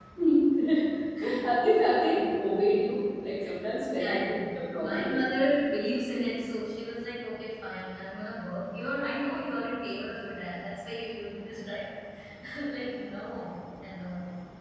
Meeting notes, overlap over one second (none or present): present